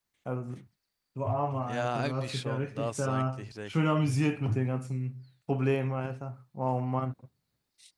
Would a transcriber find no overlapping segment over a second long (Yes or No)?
No